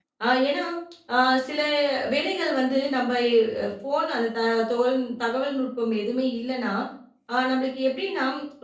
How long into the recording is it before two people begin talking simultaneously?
none

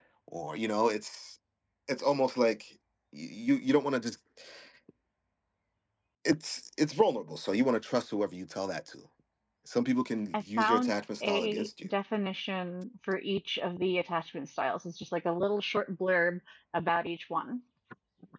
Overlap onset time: 10.3 s

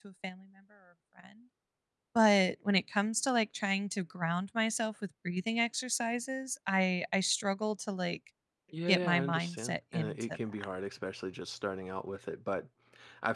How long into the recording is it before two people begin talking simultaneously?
8.9 s

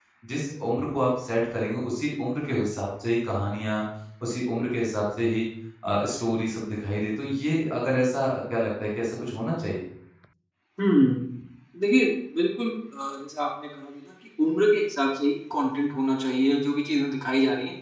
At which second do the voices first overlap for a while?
none

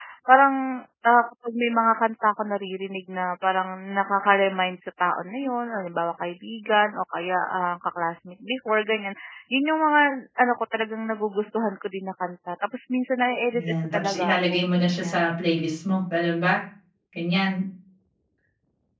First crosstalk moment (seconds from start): 13.5 s

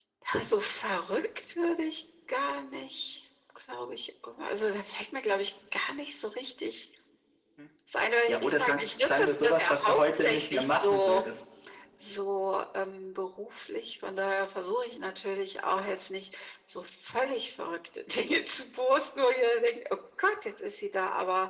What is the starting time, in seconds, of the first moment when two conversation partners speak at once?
8.3 s

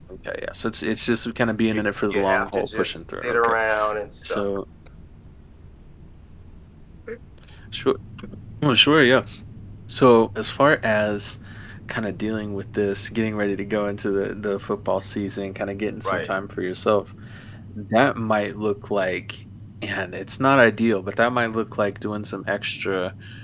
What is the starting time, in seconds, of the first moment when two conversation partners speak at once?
1.7 s

